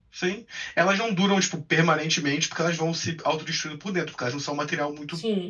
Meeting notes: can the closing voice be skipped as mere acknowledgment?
No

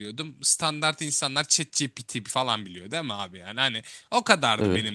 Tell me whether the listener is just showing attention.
Yes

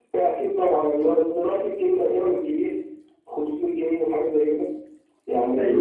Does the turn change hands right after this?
No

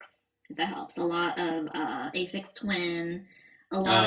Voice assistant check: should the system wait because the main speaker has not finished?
Yes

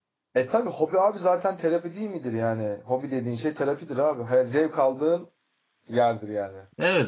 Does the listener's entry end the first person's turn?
Yes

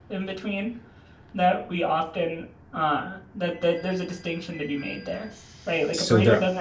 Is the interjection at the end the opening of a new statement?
No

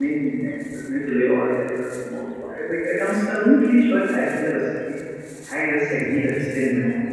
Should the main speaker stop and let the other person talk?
No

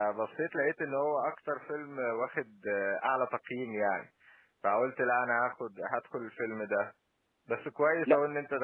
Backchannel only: Yes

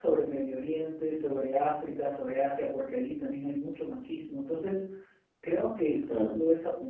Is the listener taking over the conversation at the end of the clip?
No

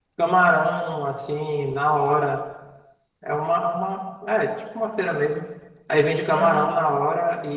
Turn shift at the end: No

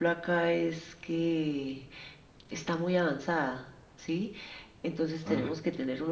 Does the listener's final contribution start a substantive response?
No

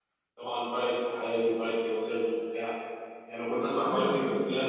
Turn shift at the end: No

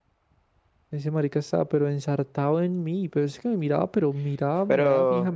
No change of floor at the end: No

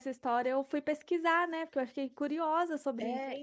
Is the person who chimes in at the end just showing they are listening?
No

